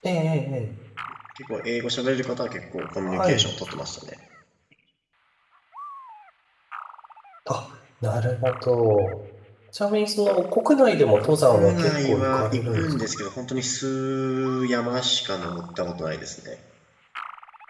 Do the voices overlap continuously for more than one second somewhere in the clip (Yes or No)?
Yes